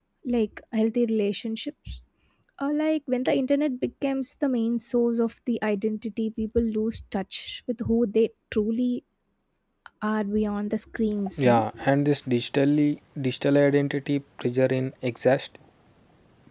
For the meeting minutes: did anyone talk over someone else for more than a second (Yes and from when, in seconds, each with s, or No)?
No